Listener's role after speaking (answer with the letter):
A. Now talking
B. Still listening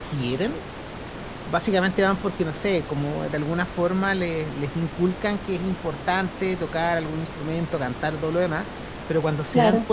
B